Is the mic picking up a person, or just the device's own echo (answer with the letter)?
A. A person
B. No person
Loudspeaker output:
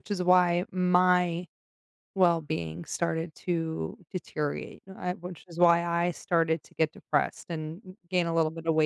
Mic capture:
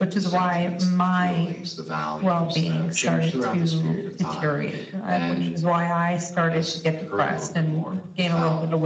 A